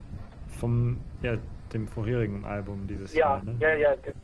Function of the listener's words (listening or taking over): taking over